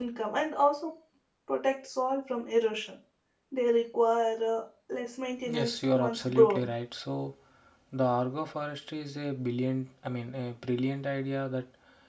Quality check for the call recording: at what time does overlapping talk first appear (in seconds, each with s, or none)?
5.5 s